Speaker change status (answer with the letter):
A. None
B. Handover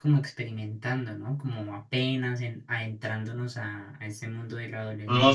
B